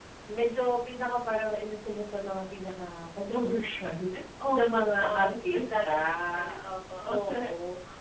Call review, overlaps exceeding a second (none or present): present